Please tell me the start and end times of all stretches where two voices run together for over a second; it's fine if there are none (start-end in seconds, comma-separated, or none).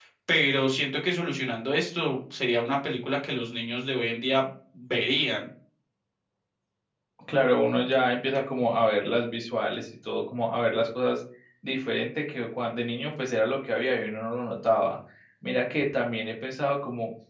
none